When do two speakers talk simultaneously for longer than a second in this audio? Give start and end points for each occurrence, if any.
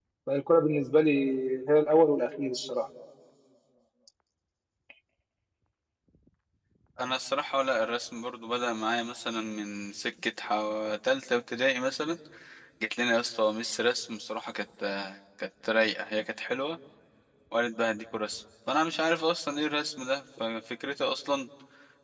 none

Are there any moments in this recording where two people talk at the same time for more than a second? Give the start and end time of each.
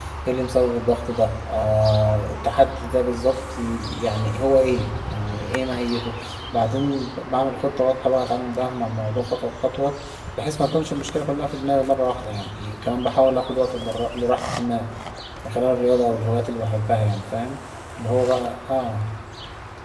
none

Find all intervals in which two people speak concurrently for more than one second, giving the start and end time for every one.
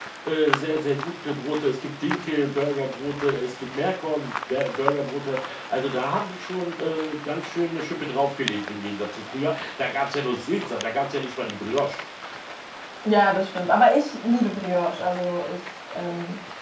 none

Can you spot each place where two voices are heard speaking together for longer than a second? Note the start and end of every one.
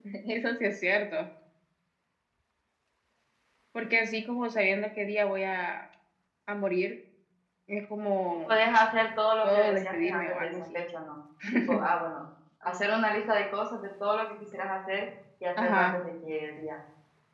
9.4-10.8

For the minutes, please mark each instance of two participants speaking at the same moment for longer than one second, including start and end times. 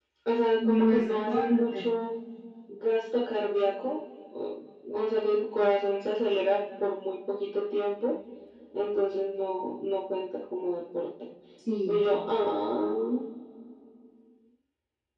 0.6-2.0

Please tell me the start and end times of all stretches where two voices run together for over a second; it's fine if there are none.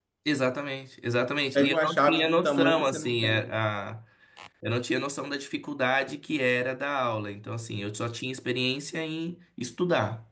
1.6-3.5

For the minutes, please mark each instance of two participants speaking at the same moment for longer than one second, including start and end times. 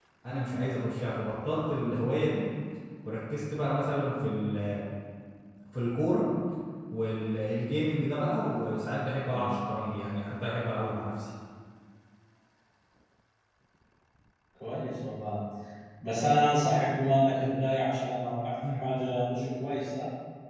none

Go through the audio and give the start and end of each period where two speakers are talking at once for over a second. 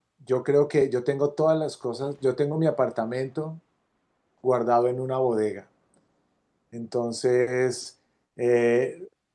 none

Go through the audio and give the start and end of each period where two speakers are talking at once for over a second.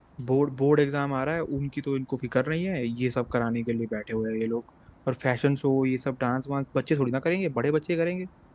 none

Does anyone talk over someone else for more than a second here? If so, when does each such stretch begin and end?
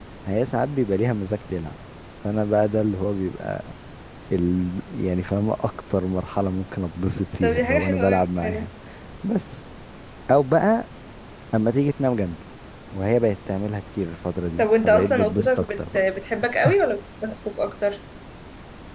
7.4-8.7, 14.6-16.0

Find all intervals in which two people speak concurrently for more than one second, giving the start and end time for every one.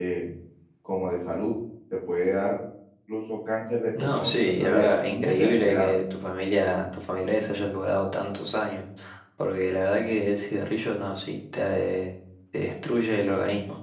4.0-5.9

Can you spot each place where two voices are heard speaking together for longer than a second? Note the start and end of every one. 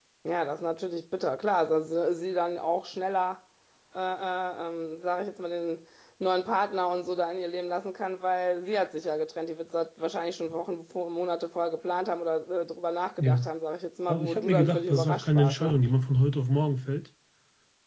14.1-15.8

